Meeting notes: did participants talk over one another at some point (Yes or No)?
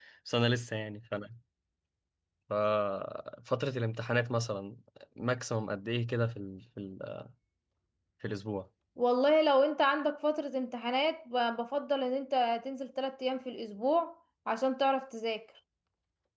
No